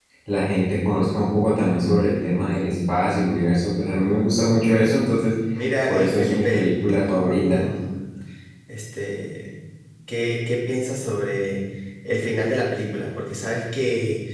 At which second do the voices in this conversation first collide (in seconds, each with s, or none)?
5.9 s